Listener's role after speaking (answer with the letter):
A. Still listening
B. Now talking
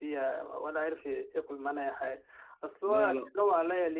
A